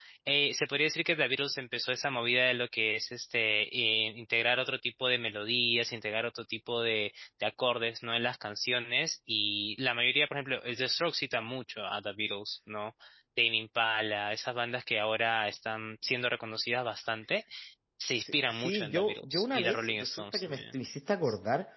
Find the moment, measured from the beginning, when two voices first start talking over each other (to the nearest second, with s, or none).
18 s